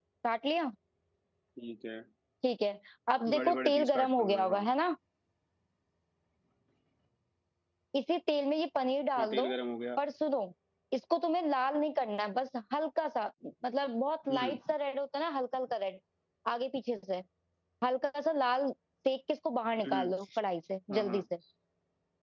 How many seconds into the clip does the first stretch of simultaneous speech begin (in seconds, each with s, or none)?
3.3 s